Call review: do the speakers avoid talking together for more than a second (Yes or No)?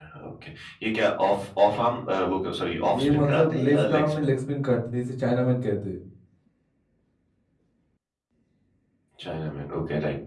No